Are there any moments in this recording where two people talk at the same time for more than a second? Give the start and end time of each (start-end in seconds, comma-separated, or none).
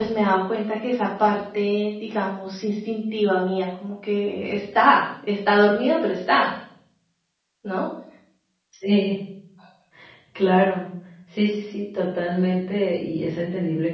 none